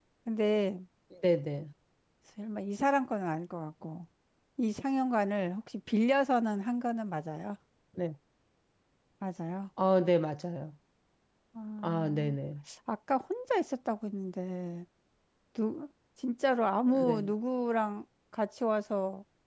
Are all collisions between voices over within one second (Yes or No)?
Yes